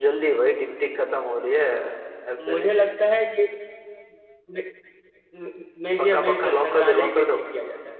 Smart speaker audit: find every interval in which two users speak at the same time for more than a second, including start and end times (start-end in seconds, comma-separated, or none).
6.0-7.4